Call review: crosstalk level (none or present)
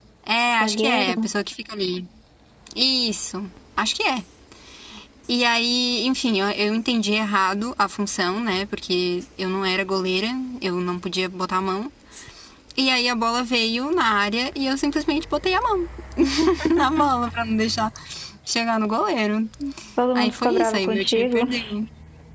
present